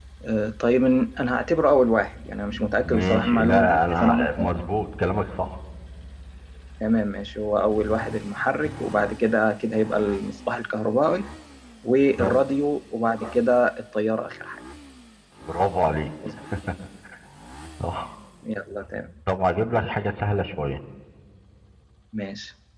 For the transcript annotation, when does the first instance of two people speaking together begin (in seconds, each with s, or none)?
2.8 s